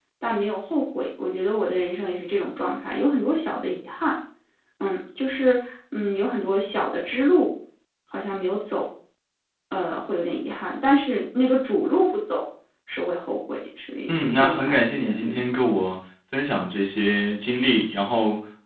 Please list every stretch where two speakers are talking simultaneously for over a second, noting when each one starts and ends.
14.1-15.4

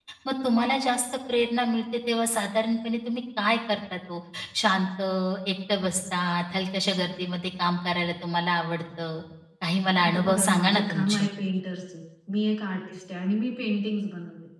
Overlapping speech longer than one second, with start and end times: 10.0-11.3

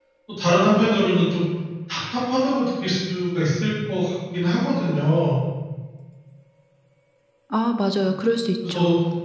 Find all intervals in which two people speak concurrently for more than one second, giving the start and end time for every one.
none

